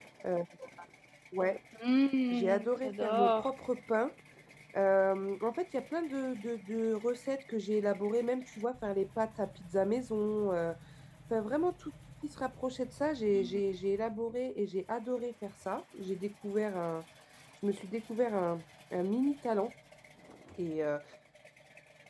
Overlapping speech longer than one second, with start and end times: 2.3-3.5

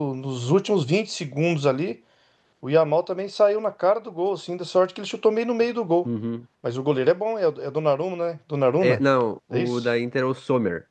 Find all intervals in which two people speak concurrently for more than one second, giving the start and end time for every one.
none

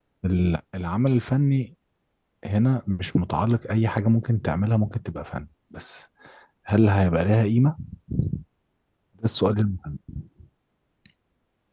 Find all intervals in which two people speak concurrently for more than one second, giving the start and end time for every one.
none

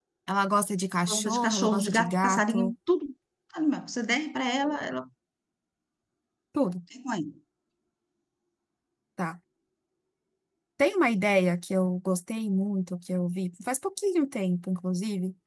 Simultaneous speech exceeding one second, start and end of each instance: 1.1-2.7

